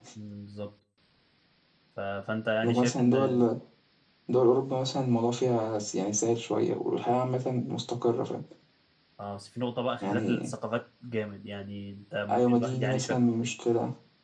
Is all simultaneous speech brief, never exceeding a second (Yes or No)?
No